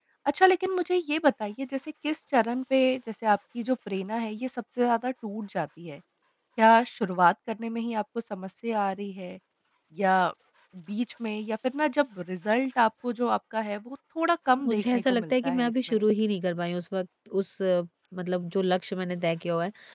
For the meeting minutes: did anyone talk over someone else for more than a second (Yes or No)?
Yes